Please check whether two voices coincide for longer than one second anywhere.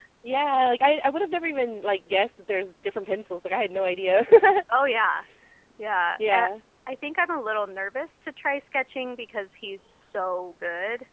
No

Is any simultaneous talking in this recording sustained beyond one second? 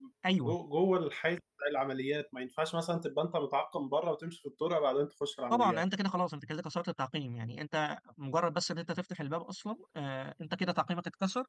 No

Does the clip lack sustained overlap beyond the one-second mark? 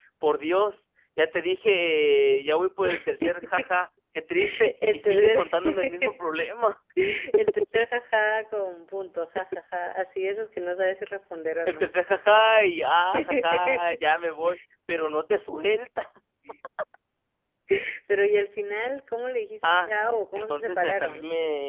No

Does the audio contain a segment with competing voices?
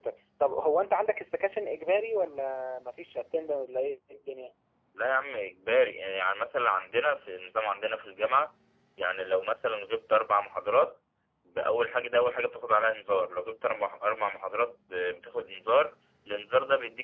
No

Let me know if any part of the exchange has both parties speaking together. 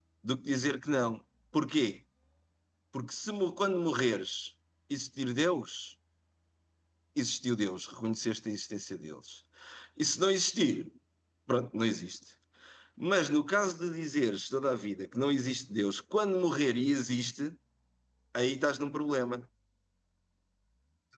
No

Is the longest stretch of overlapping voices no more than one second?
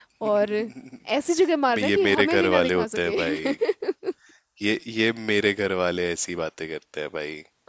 No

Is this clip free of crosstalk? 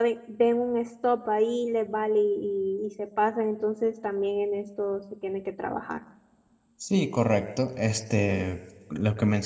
Yes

